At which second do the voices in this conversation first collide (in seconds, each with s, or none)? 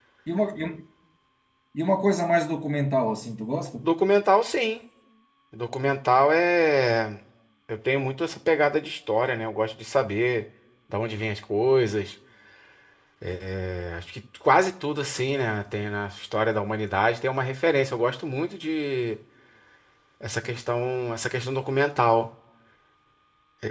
none